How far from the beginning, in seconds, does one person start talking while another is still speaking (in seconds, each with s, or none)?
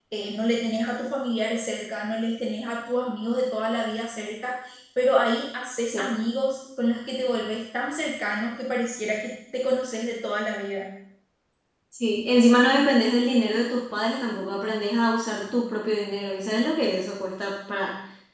none